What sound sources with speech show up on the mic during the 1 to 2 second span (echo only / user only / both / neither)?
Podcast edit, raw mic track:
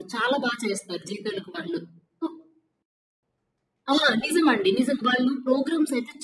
echo only